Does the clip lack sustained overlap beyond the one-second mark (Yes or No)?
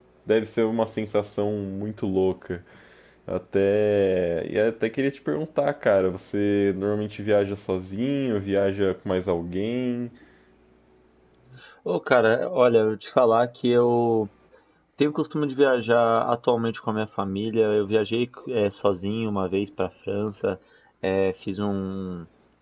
Yes